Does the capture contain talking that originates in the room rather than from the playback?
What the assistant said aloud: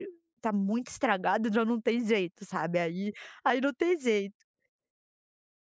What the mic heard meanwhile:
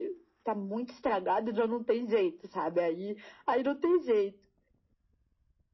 No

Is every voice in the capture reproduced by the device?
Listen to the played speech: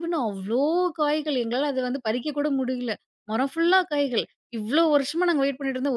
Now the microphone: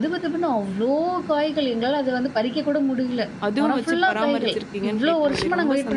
No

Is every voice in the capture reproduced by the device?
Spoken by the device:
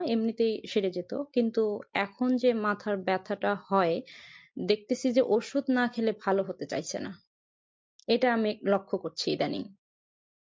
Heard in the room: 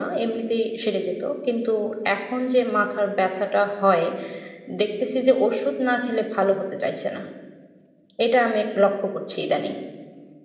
Yes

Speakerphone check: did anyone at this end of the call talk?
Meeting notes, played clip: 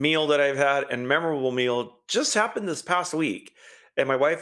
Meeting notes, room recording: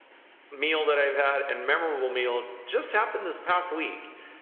No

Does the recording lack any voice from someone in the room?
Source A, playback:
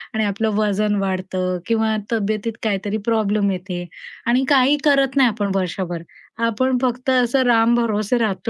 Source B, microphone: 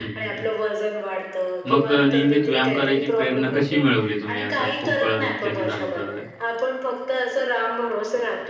No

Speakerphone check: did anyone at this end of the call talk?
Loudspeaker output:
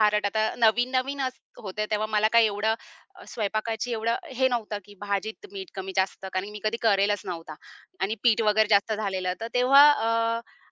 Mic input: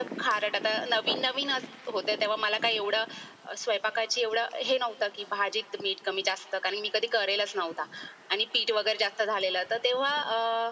No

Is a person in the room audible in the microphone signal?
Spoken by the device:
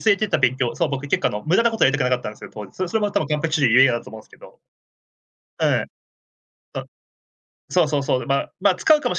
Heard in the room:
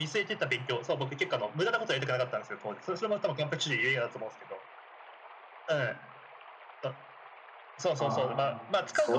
Yes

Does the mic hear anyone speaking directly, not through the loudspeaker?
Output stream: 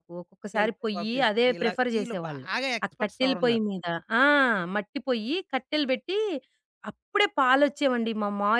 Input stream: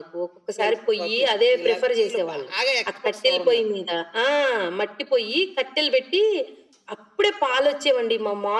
No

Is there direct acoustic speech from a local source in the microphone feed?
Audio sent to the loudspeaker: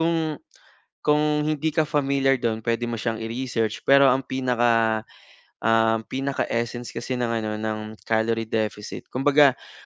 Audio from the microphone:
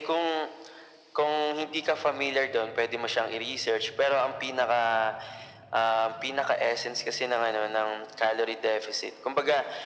No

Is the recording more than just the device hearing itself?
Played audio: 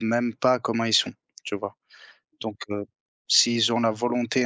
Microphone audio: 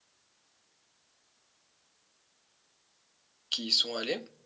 Yes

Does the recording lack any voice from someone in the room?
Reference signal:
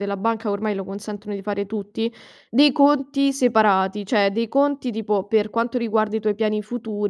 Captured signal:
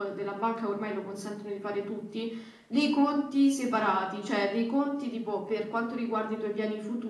Yes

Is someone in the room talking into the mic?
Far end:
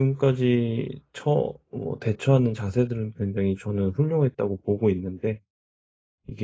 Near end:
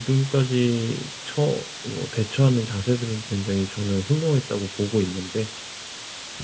No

